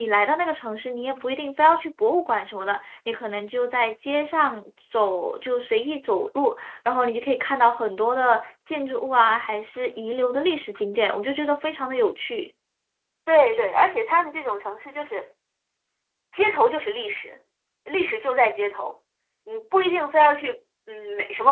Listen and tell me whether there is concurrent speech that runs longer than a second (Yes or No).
No